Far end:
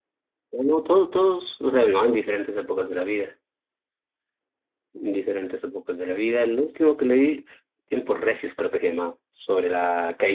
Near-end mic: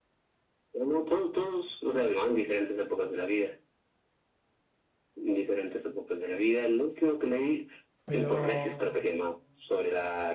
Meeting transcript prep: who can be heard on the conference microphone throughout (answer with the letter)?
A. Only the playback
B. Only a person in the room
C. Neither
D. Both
D